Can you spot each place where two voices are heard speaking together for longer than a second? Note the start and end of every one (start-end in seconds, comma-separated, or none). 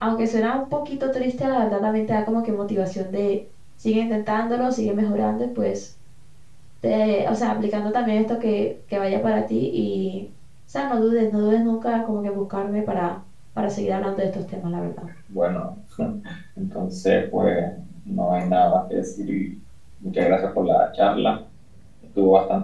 none